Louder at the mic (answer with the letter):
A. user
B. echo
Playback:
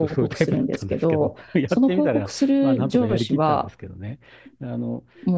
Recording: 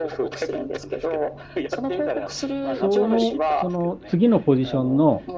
A